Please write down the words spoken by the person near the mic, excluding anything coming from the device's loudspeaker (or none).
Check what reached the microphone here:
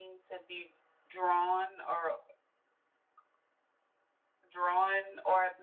none